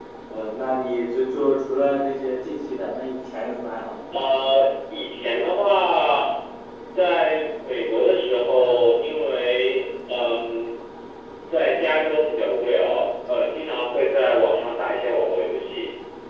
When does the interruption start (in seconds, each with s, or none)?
none